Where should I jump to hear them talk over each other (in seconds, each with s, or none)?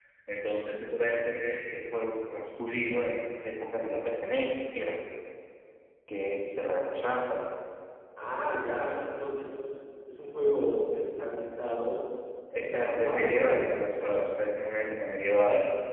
12.5 s